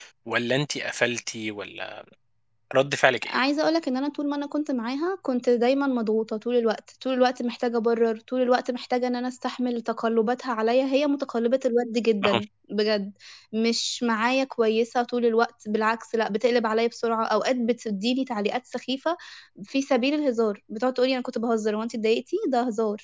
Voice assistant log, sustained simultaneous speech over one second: none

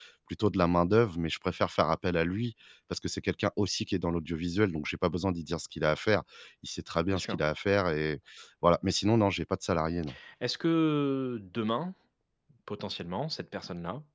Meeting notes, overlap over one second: none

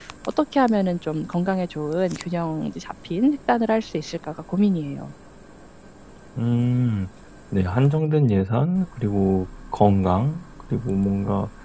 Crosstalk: none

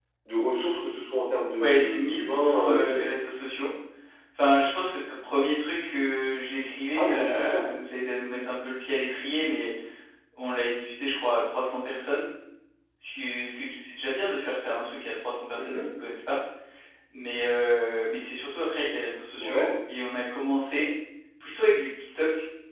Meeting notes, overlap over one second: present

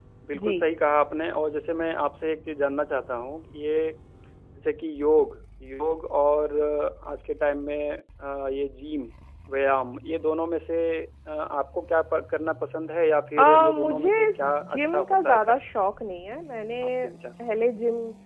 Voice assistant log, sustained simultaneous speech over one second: present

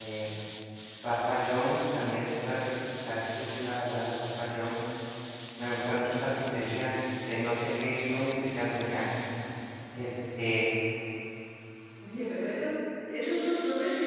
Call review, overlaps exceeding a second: none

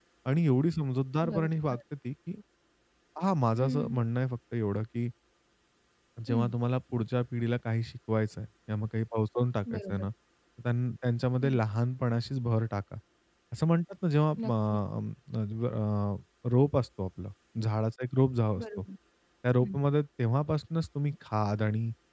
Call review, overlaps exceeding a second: none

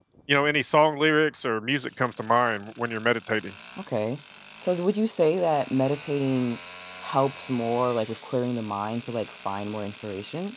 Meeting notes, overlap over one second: none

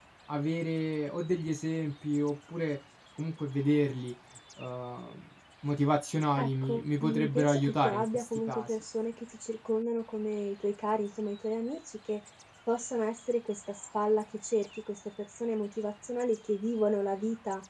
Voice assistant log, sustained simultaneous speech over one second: present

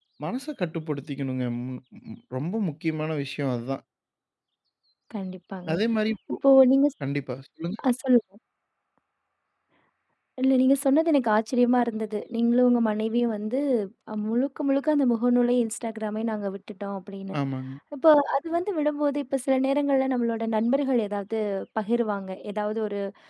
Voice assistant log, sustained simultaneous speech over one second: none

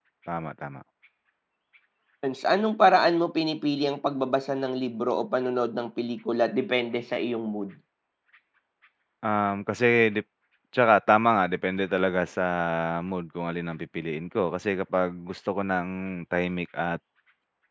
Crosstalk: none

